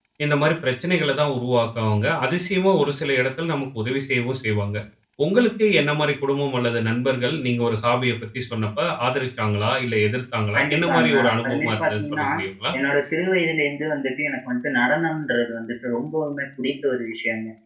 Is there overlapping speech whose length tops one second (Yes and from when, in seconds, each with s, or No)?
Yes, from 10.6 s